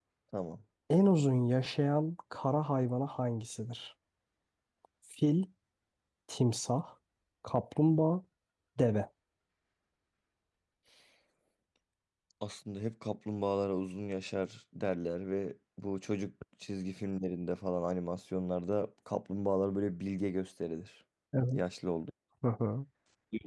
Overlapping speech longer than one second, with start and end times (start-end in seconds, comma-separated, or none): none